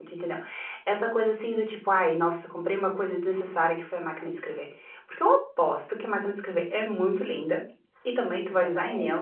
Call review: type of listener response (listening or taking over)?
listening